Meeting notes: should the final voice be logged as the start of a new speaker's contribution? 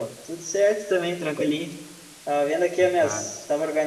No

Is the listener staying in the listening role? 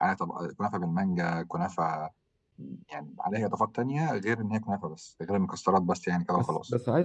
No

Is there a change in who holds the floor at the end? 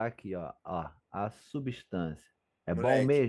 Yes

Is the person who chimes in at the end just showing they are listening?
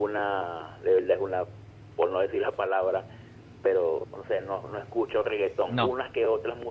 Yes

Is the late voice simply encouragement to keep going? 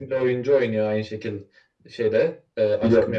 Yes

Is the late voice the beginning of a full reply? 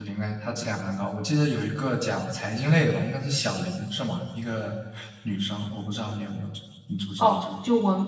Yes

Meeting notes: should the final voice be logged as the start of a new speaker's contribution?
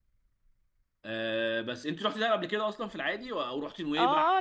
Yes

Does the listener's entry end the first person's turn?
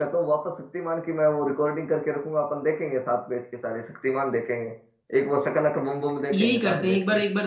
Yes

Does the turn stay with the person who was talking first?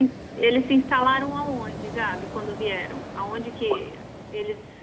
Yes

